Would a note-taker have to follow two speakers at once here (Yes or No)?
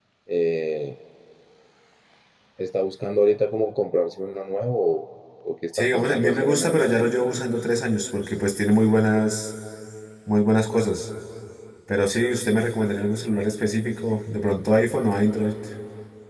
Yes